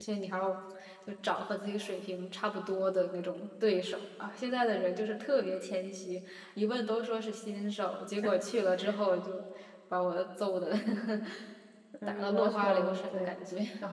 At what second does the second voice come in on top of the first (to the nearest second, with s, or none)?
12 s